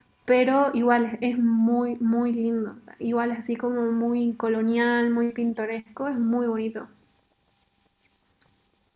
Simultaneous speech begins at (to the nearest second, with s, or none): none